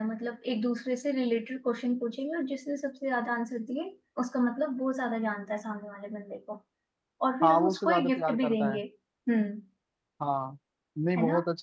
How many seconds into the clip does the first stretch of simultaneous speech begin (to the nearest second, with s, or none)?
7 s